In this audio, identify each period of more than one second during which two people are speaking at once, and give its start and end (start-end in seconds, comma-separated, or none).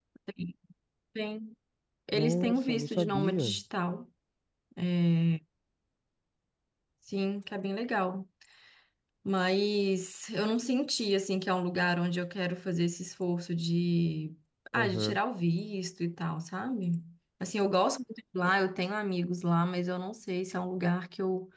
2.1-3.6